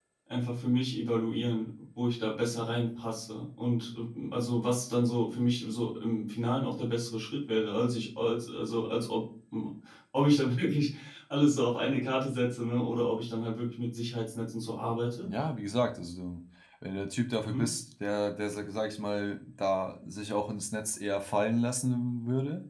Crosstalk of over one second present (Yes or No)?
No